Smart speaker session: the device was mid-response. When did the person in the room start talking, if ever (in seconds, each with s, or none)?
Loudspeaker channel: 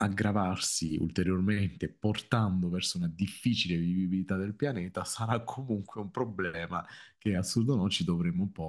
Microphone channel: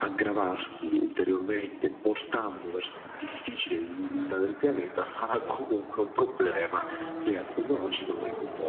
5.0 s